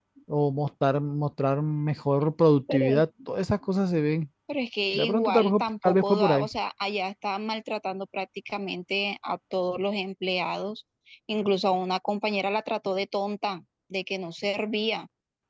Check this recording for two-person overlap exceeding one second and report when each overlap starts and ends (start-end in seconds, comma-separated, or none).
4.9-6.5